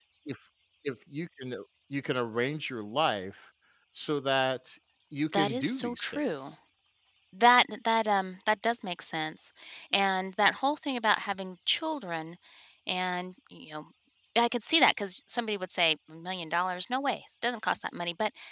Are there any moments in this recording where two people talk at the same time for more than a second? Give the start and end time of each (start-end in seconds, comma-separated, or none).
5.3-6.5